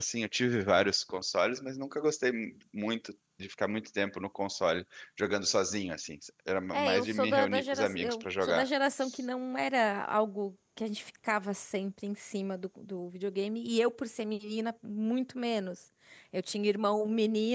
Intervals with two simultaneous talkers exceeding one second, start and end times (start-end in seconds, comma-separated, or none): 6.7-8.7